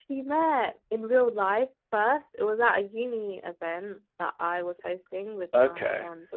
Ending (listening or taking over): listening